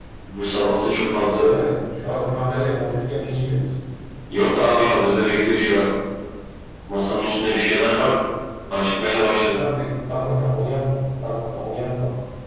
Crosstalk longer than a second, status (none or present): none